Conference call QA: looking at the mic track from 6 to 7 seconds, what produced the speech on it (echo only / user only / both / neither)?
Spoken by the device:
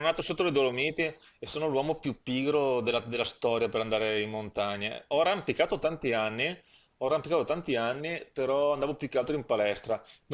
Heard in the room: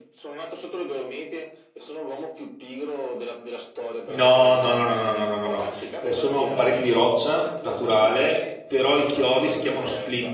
both